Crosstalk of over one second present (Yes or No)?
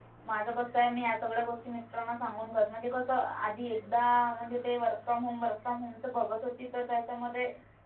No